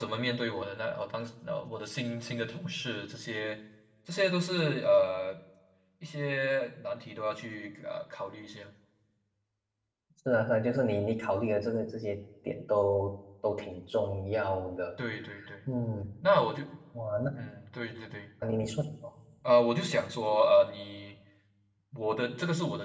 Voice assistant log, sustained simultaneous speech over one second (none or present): none